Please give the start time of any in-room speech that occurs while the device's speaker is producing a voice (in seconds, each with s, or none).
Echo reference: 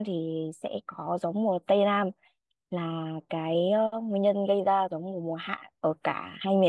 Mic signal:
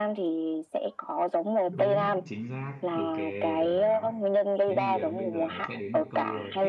1.7 s